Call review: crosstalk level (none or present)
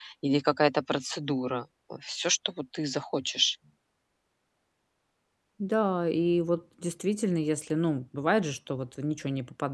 none